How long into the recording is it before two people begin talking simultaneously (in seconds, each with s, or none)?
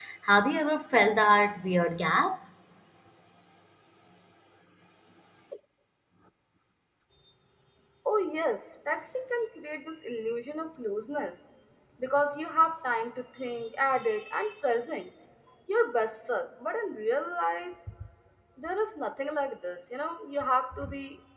none